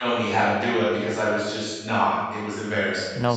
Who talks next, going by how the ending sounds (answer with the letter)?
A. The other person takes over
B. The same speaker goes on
A